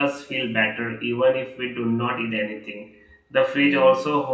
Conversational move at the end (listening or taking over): listening